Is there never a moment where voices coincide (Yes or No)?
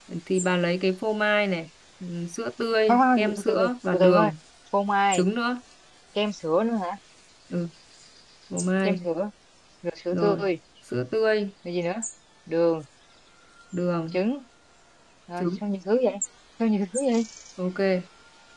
No